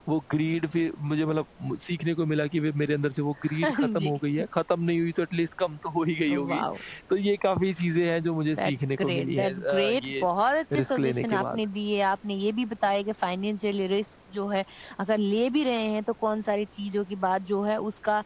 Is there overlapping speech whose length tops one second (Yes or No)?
Yes